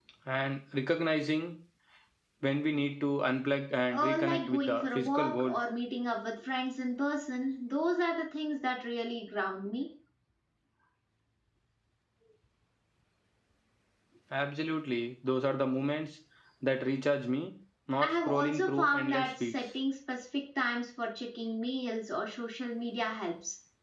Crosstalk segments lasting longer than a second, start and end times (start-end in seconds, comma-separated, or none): 3.9-5.6, 18.0-19.6